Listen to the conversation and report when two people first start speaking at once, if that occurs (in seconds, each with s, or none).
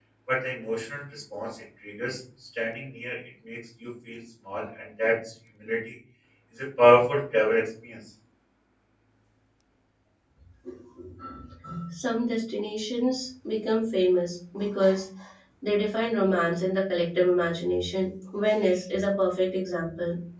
none